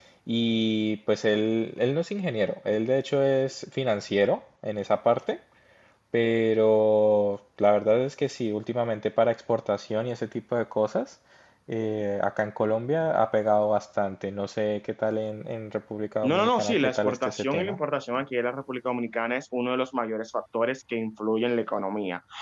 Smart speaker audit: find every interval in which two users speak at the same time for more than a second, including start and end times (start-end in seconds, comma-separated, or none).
16.2-17.8